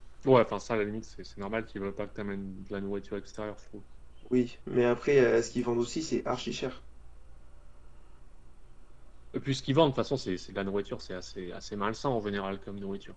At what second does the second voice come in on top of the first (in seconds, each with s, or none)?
none